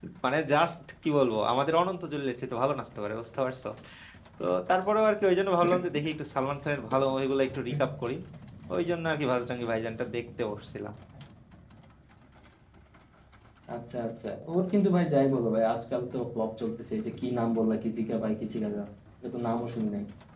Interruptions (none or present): none